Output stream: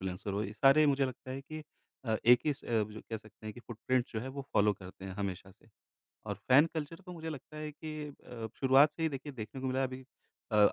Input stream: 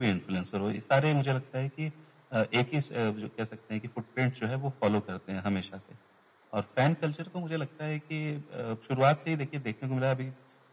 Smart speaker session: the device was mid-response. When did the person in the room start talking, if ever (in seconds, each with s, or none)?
none